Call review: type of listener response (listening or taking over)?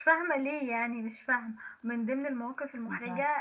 listening